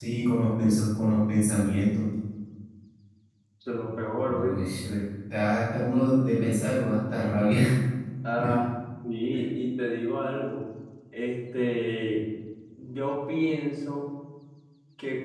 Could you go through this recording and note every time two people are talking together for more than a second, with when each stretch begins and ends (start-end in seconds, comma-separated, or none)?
none